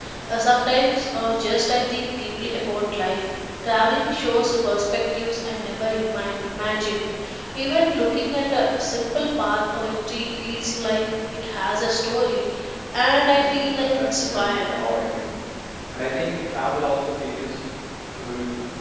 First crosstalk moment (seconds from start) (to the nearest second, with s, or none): 13 s